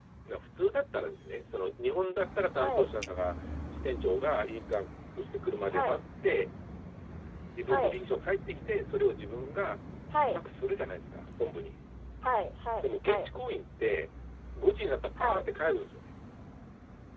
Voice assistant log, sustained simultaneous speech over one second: none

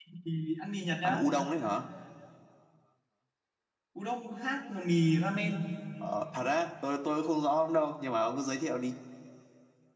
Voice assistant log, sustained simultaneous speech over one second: none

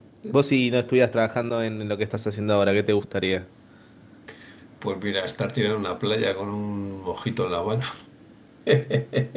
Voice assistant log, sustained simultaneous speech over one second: none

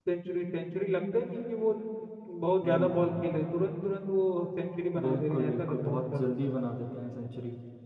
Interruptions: present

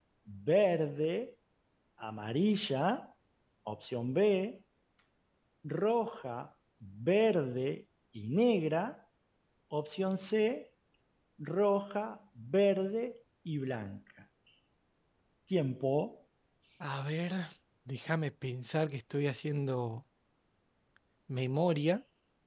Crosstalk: none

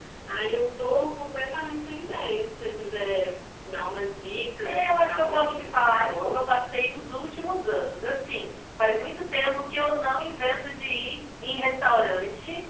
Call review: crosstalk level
present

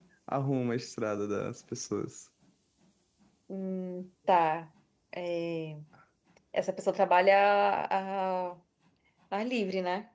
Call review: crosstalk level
none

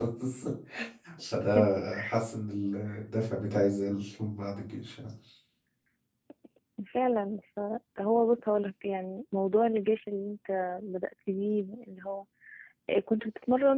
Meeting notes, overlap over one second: none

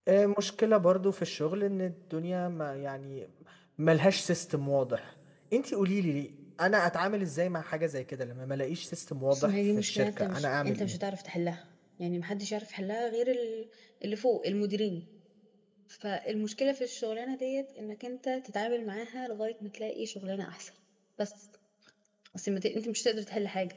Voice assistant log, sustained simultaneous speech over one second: present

